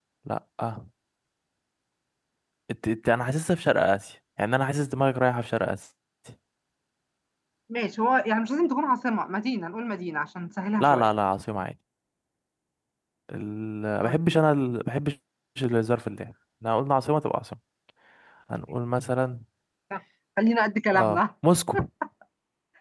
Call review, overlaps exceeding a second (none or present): none